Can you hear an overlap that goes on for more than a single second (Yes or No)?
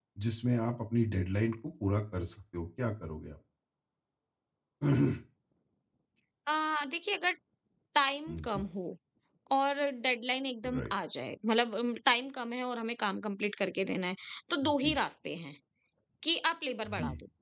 No